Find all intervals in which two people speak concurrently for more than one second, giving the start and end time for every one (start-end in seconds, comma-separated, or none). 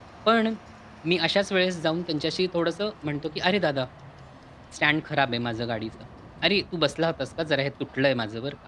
none